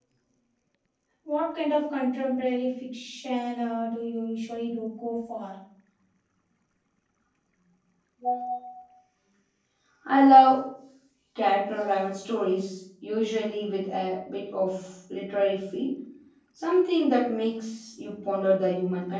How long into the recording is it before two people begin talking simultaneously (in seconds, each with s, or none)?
none